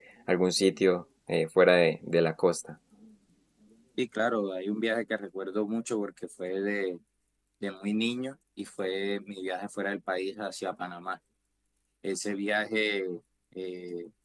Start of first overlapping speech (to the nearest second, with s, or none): none